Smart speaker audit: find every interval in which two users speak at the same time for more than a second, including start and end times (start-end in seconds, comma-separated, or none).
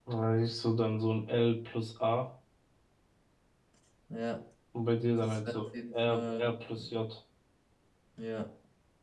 5.2-6.5